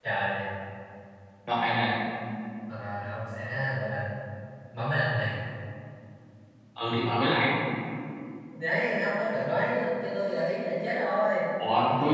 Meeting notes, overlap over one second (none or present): none